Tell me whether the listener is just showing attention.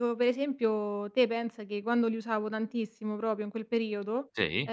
Yes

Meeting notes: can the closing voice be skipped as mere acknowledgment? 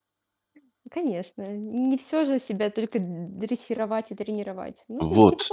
No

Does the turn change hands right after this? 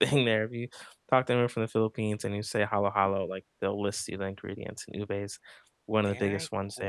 Yes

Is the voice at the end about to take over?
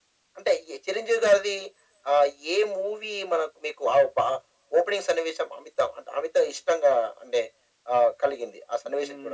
Yes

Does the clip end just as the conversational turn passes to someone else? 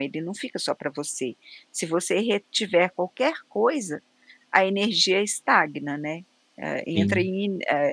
No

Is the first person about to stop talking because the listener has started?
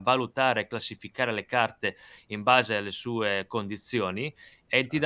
Yes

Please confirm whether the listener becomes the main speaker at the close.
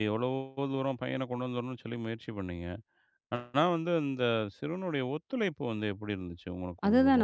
Yes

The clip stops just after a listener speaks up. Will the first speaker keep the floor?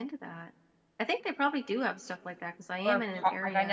No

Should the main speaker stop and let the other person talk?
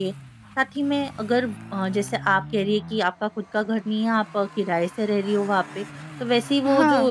No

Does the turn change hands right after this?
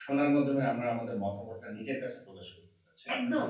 Yes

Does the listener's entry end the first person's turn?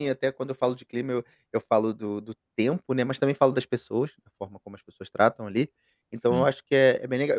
No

